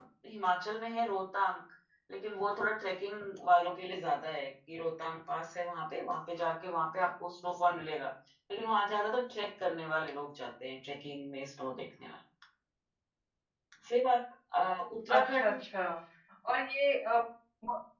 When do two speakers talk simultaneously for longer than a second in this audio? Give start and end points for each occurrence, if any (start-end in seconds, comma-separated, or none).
none